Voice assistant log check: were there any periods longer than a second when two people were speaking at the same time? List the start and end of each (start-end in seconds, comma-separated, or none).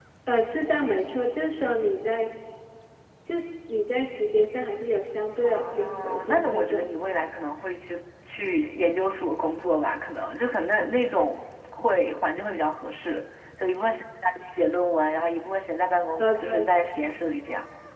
5.4-6.9